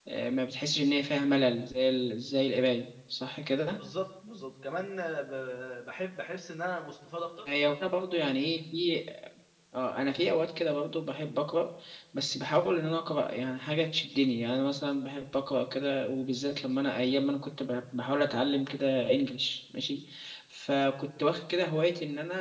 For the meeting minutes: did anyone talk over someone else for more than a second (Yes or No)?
No